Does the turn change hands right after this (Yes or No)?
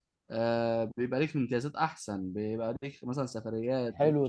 Yes